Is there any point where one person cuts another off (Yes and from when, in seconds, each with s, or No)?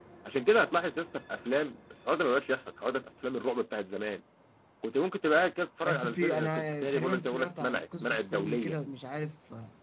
Yes, from 5.8 s